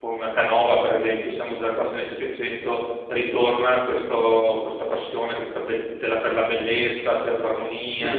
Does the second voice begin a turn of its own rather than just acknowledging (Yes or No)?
Yes